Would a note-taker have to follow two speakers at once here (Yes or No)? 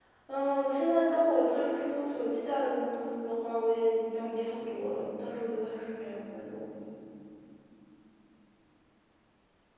No